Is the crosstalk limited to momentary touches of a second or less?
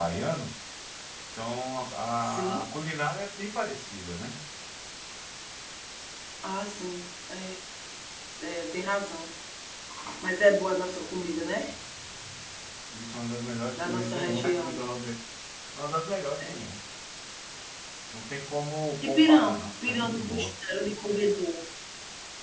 No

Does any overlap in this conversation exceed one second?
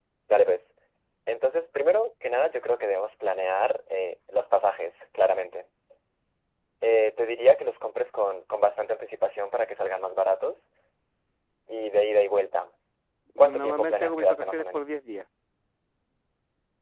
Yes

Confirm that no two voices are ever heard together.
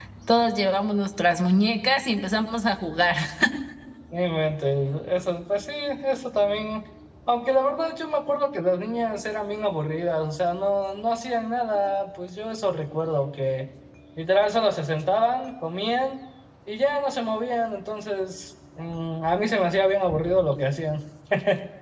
Yes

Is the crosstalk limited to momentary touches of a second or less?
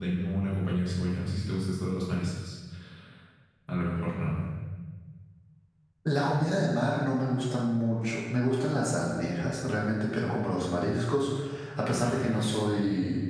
Yes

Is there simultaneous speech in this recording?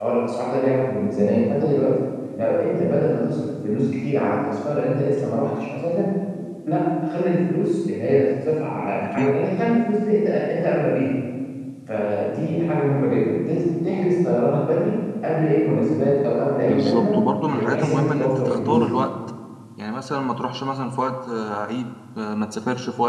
Yes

